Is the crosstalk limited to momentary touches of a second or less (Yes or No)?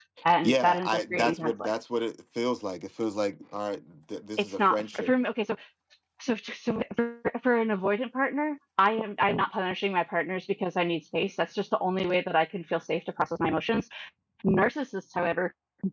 No